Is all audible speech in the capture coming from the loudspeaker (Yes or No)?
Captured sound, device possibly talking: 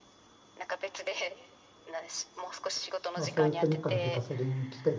No